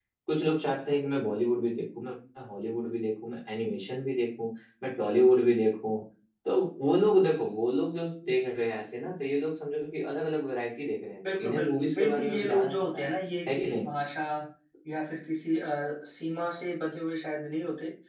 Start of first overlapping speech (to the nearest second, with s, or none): 11 s